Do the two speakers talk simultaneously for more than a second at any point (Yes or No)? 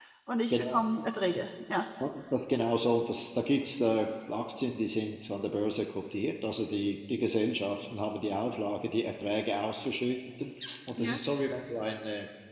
No